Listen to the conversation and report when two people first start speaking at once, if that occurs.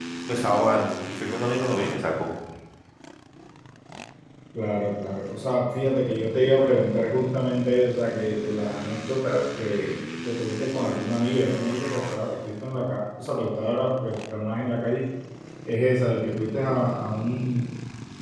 none

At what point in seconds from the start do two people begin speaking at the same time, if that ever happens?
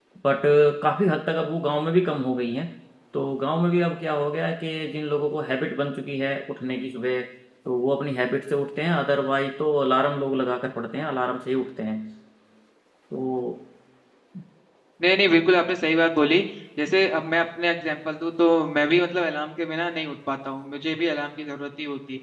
none

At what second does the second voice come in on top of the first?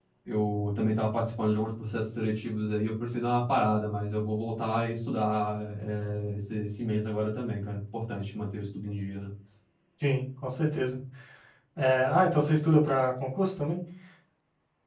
none

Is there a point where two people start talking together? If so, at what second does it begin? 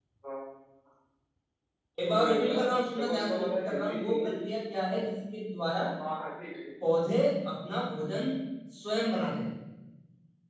2.1 s

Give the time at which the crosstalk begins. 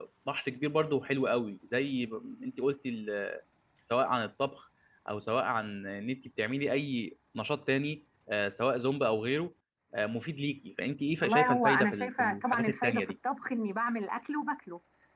11.2 s

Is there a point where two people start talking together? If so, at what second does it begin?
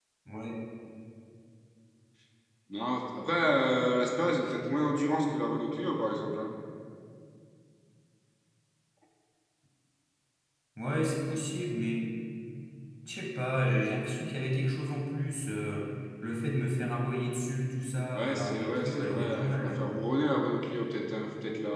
18.1 s

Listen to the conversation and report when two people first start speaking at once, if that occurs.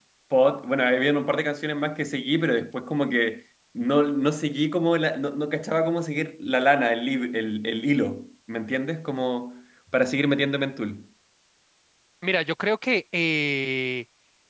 none

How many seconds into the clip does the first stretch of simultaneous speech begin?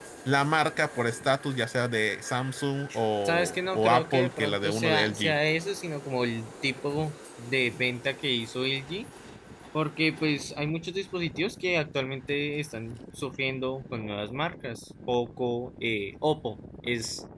3.2 s

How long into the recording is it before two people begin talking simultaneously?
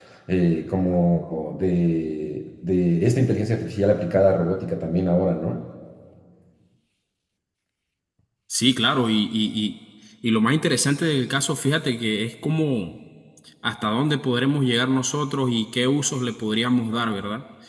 none

